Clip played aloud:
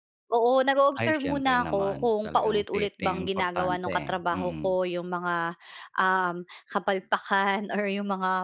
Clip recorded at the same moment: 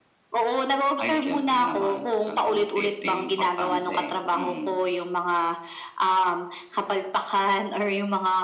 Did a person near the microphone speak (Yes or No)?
No